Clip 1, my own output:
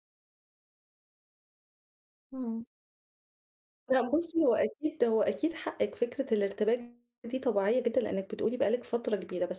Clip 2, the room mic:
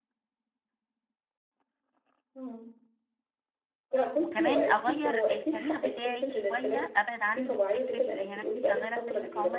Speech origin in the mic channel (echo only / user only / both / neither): both